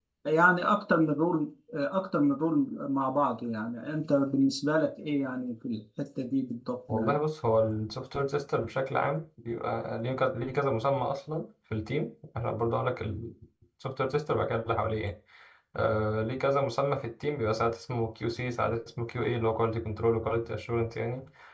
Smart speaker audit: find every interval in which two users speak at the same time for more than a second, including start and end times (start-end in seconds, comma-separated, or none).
none